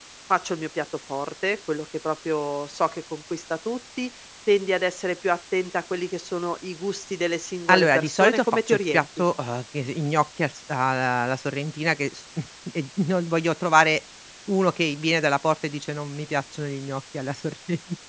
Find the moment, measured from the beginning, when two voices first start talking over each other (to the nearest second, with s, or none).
8 s